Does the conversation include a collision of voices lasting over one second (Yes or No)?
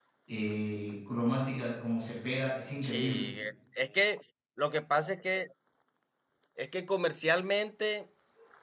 No